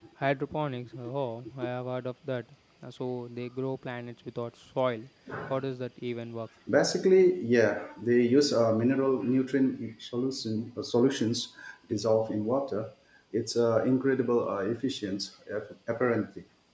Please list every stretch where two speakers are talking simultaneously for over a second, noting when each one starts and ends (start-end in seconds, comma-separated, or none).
none